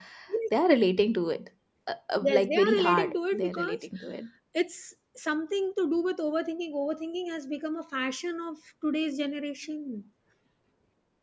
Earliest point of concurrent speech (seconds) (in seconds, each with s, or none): 2.2 s